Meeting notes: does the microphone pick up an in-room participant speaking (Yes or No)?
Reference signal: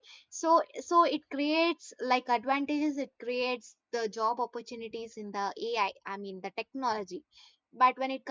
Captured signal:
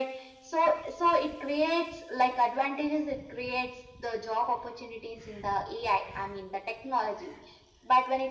No